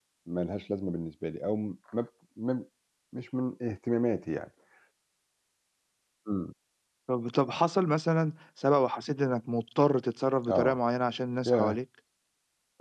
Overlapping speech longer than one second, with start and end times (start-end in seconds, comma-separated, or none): none